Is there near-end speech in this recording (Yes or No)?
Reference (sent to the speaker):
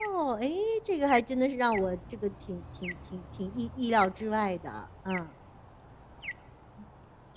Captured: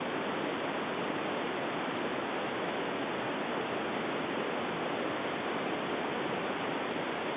No